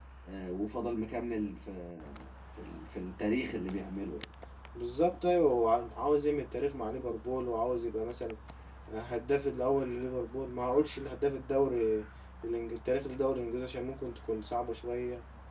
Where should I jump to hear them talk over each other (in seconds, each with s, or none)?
none